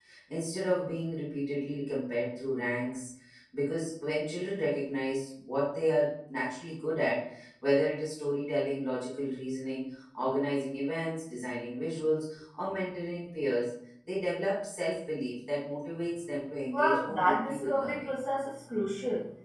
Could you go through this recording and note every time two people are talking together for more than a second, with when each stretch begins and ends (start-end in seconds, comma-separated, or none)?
16.7-18.1